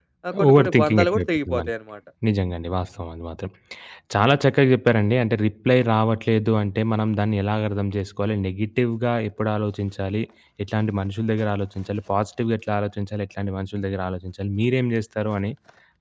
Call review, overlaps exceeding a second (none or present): present